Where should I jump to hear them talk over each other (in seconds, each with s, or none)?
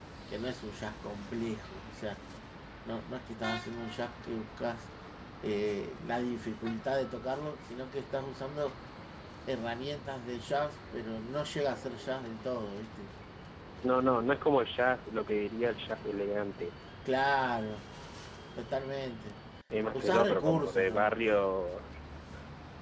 19.9 s